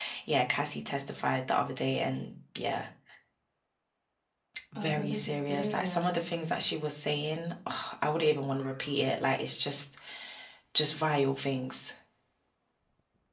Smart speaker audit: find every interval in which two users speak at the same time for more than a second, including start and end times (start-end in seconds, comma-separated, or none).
4.8-6.2